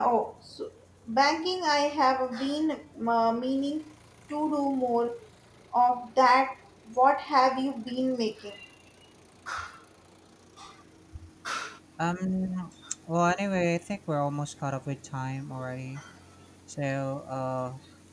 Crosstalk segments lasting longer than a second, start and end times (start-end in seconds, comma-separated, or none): none